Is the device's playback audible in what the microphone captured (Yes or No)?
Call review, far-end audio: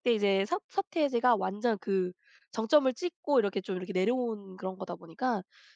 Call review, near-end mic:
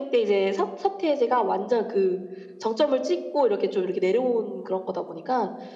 Yes